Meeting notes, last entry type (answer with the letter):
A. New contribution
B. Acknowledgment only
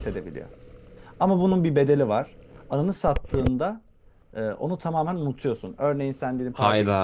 B